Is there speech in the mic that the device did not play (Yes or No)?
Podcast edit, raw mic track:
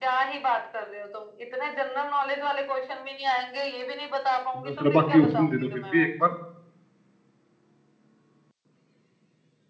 Yes